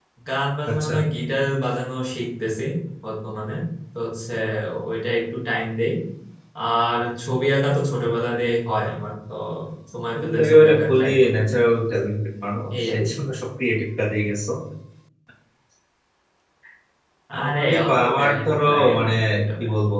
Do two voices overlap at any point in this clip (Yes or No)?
Yes